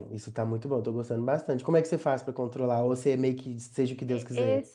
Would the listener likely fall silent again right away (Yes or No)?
No